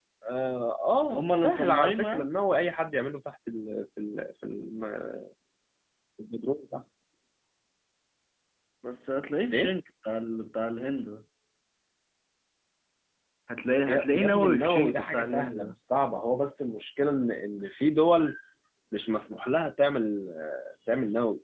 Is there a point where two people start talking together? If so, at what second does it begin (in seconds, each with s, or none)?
1.1 s